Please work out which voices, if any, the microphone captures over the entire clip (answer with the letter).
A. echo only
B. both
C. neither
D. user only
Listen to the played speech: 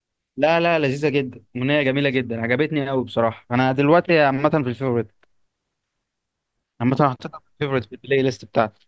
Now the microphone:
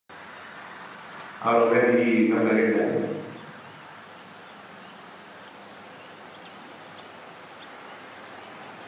D